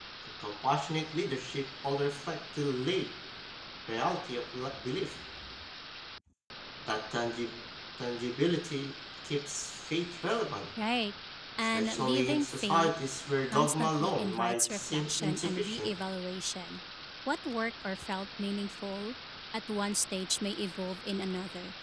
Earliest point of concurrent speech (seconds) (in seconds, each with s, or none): 11.6 s